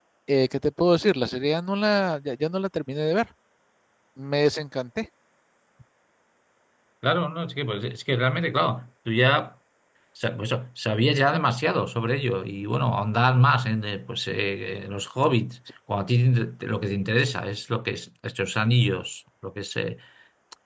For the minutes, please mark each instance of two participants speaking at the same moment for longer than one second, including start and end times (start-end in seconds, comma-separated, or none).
none